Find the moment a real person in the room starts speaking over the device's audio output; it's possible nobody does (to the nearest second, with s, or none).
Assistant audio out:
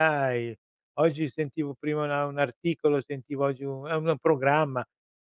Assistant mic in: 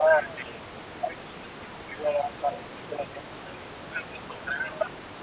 none